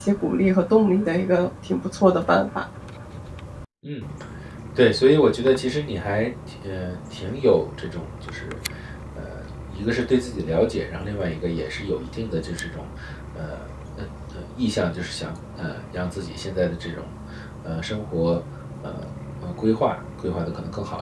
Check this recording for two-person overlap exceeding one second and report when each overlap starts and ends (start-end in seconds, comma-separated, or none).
none